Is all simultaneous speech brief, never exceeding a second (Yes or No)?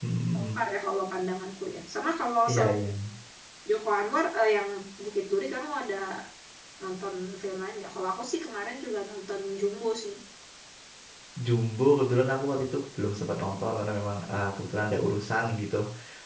Yes